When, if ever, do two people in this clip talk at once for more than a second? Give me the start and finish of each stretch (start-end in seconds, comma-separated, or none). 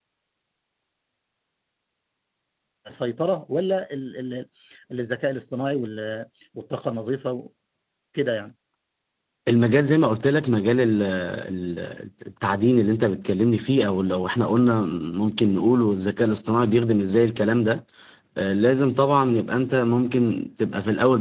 none